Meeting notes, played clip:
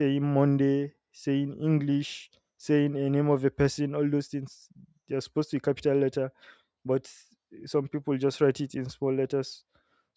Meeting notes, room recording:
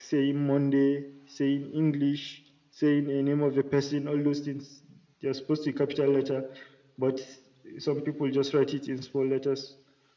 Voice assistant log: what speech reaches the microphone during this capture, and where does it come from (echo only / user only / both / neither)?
echo only